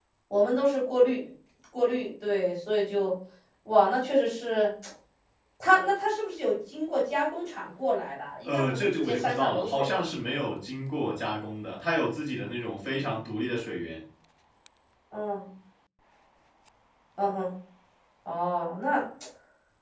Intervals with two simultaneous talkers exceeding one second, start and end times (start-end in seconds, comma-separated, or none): 8.4-10.0